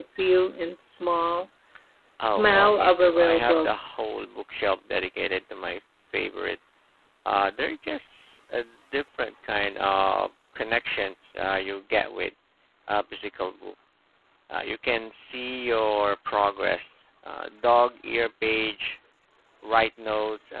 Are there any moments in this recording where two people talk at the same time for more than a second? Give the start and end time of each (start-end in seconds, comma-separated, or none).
2.2-3.7